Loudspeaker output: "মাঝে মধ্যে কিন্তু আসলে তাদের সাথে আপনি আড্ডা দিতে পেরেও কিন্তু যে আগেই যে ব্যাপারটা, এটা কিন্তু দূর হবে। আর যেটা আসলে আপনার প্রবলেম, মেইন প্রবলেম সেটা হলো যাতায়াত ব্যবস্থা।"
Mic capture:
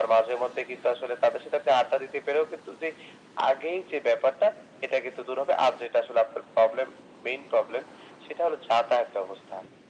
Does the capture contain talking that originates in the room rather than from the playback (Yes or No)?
No